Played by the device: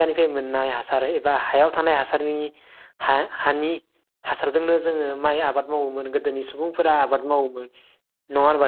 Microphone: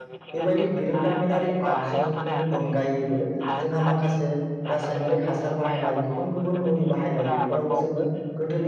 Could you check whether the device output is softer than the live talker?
Yes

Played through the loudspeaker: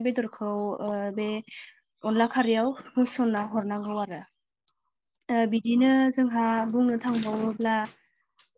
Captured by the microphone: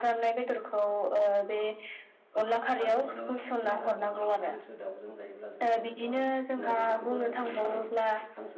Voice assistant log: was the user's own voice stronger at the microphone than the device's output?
No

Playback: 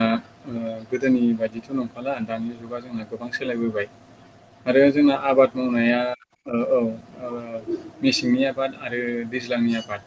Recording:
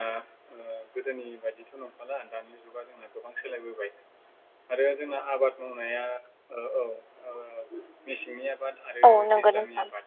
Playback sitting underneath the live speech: Yes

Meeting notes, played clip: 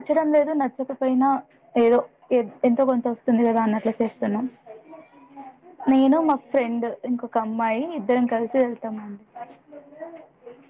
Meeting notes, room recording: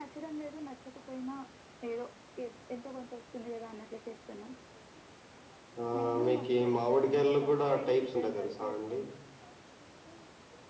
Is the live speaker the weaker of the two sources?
No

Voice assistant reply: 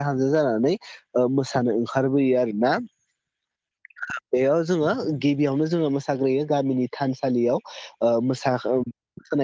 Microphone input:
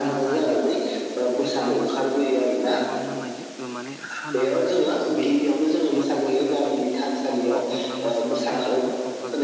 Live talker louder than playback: No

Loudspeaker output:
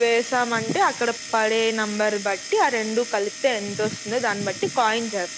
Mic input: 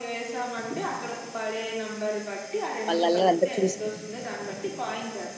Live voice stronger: Yes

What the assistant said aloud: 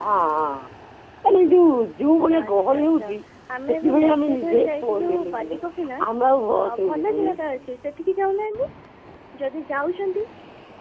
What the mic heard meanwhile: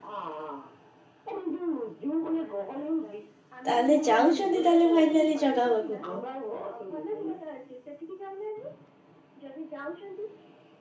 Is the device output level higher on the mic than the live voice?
No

